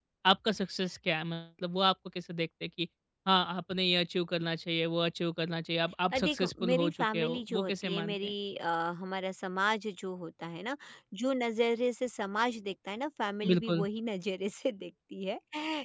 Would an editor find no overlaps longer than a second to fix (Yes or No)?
No